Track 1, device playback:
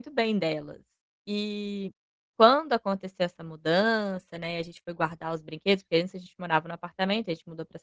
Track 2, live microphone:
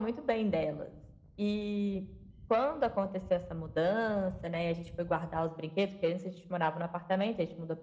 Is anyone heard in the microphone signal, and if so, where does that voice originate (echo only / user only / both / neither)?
echo only